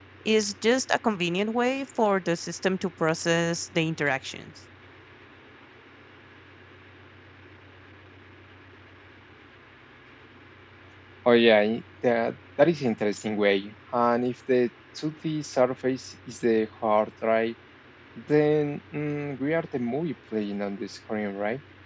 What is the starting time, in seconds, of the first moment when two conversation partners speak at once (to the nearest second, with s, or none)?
none